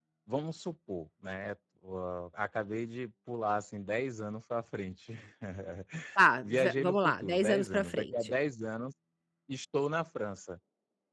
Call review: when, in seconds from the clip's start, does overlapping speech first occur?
6 s

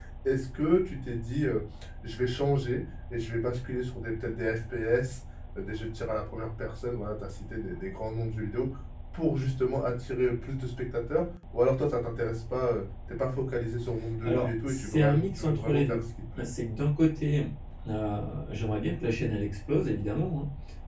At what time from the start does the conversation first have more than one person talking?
14 s

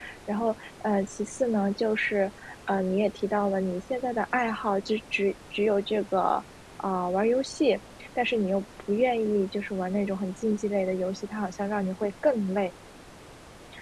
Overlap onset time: none

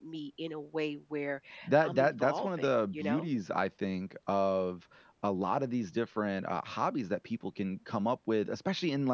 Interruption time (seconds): 2 s

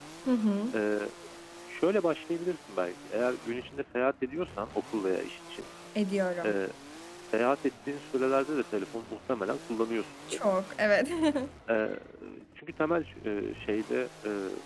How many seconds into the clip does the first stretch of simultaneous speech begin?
none

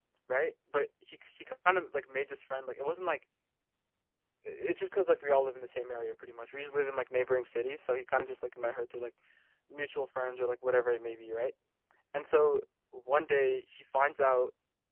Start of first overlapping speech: none

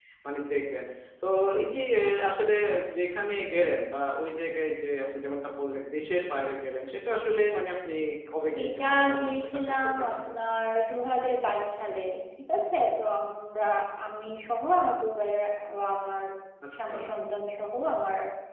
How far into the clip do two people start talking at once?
9 s

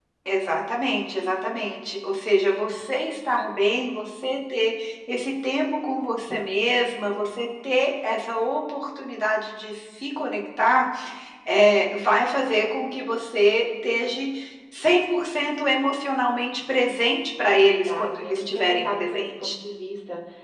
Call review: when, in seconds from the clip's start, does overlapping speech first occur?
17 s

